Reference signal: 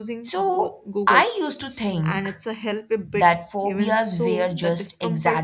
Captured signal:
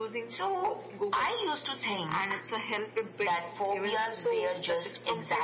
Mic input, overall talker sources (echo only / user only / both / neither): echo only